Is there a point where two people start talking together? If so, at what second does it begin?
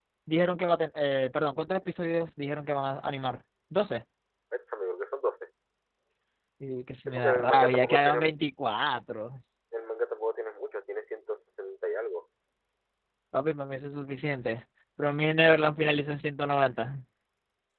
7.1 s

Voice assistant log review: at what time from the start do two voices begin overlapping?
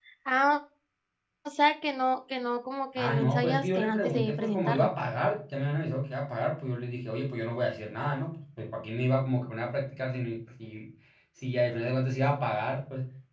3.0 s

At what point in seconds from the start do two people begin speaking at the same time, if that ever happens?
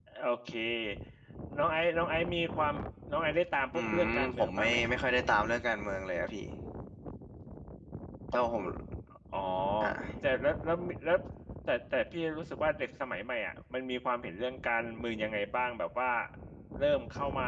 3.7 s

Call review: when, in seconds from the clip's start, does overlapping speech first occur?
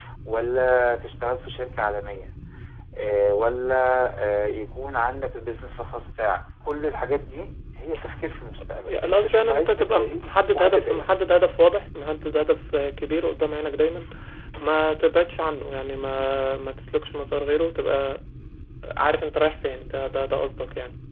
8.9 s

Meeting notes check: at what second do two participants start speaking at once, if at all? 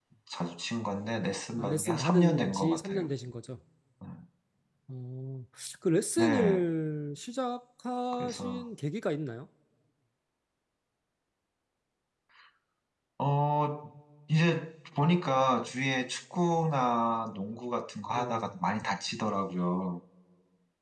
1.6 s

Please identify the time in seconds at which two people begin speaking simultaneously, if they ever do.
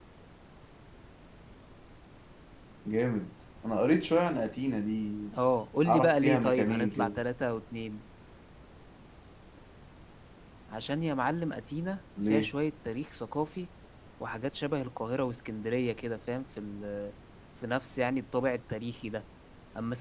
5.9 s

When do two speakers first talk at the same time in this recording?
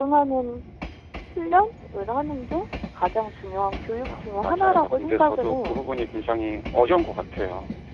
4.1 s

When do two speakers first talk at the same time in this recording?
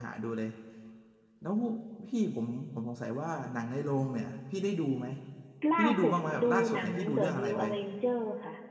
5.8 s

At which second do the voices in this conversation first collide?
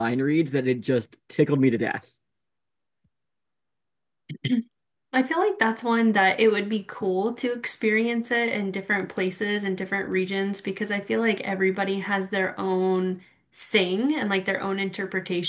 none

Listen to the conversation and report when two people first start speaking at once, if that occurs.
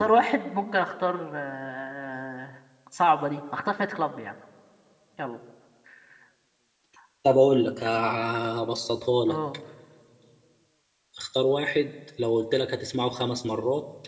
none

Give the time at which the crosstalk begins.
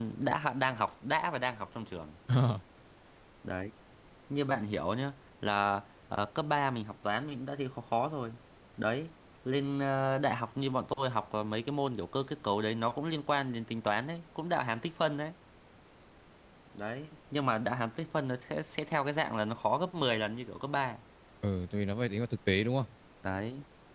none

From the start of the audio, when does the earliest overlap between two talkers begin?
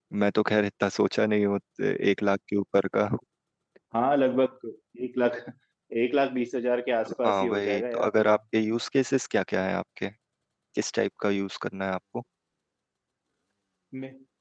7.0 s

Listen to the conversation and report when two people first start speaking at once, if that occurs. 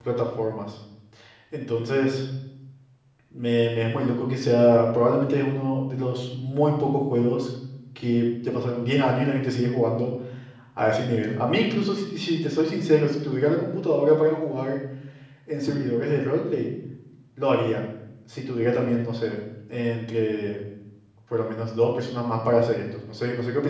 none

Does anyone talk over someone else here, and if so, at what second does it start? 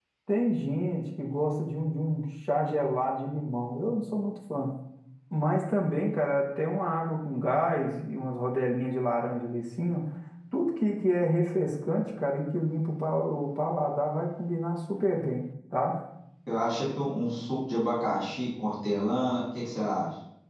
none

